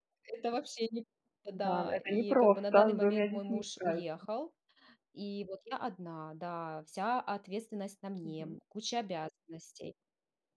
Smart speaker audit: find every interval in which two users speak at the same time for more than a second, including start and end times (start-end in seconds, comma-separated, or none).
1.5-4.0